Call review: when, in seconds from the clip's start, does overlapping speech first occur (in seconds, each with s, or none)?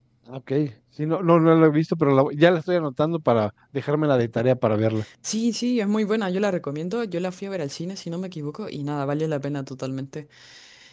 none